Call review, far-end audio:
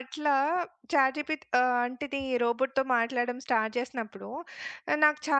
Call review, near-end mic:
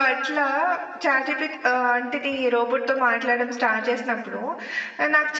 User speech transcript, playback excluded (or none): none